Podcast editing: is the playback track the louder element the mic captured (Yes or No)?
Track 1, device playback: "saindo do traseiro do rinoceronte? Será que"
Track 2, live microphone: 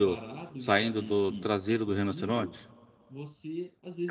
Yes